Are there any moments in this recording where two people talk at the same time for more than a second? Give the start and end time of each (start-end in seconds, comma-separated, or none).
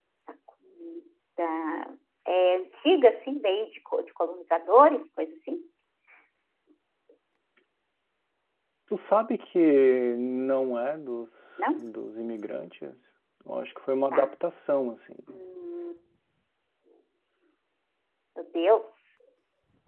none